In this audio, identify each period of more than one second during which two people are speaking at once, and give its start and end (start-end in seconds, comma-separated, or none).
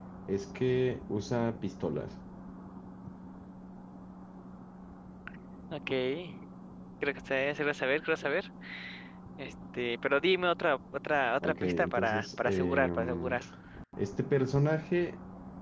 11.4-13.4